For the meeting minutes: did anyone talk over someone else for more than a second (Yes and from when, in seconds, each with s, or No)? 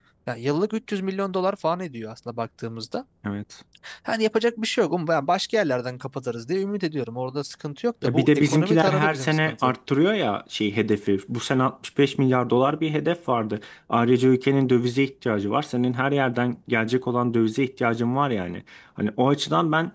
Yes, from 8.0 s